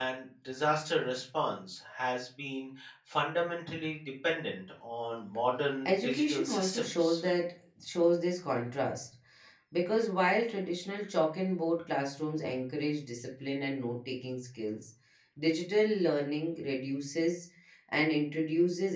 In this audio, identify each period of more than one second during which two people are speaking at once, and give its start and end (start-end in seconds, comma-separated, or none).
5.8-7.2